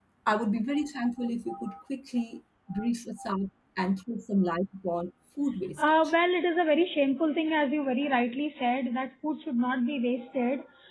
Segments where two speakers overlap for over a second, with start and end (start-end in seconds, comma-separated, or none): none